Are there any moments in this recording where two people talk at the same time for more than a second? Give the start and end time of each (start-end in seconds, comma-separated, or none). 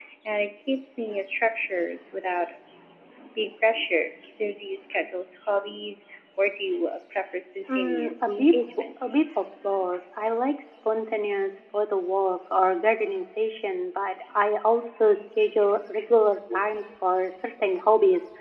7.7-9.1